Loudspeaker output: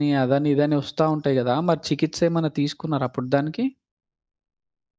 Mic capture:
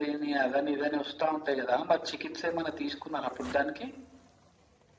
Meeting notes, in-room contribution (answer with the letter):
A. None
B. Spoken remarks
A